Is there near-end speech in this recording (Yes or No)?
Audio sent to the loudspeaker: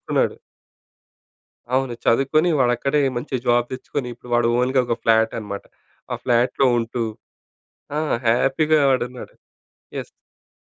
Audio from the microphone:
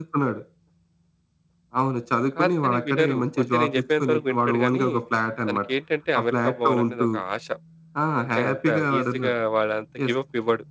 Yes